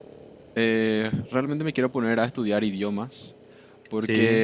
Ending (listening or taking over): listening